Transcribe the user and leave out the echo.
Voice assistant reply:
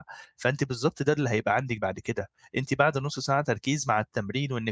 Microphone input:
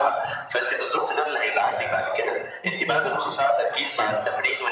إزاي؟

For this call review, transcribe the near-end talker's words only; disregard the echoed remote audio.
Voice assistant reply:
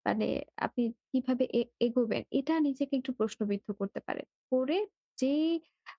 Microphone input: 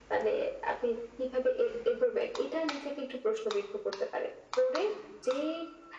none

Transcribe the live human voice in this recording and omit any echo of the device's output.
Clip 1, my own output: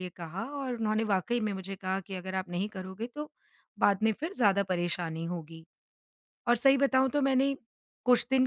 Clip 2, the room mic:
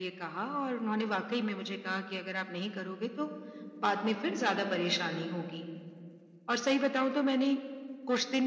none

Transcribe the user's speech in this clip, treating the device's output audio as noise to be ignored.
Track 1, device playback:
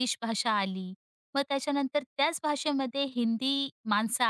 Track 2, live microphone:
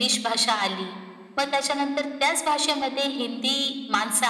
none

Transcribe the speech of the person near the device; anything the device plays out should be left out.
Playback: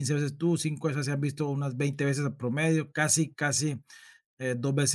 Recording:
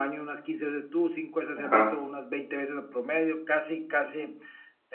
Ajá,

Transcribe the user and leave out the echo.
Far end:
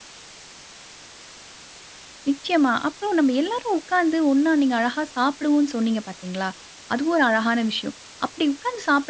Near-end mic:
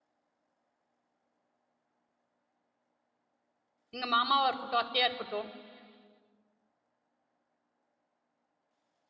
எங்க மாமாவா இருக்கட்டும், அத்தையா இருக்கட்டும்,

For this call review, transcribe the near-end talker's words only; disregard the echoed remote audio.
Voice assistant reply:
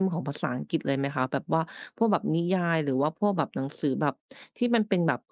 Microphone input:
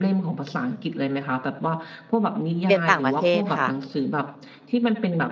เรียนต่างประเทศค่ะ

